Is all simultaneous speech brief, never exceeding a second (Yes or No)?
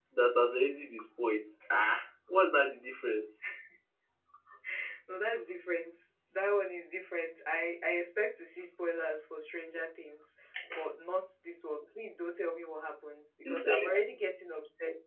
Yes